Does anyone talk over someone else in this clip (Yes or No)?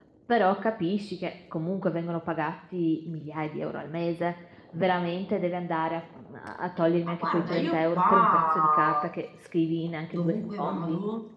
Yes